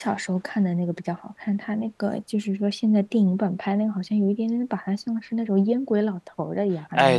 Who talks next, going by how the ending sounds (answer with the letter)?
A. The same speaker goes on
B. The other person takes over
B